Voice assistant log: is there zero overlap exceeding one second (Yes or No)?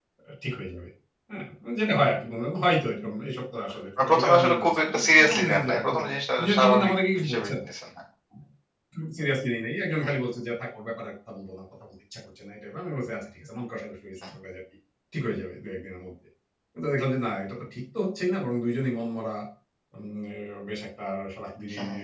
No